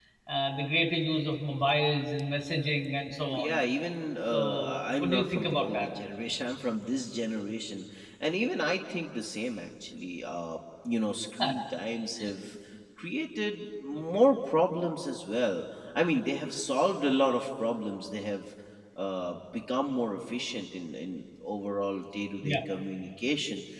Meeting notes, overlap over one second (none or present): present